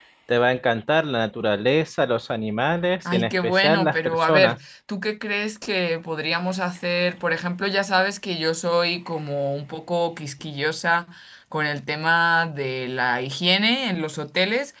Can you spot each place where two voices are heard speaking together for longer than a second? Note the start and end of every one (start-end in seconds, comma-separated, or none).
3.0-4.6